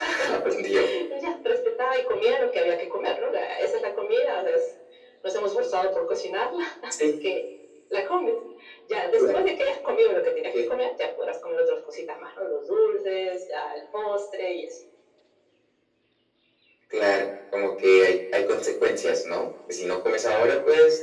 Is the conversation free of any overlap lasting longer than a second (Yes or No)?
Yes